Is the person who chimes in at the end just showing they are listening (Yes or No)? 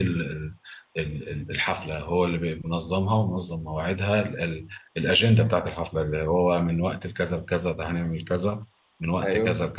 No